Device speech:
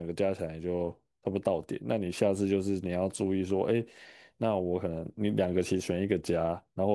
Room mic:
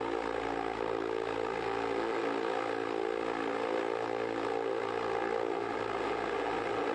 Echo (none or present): none